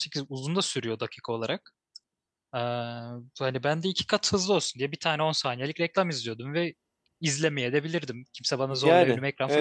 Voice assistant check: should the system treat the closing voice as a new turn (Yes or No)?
Yes